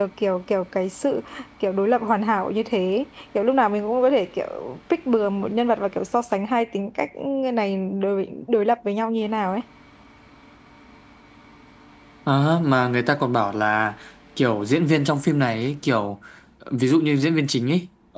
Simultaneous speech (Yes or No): No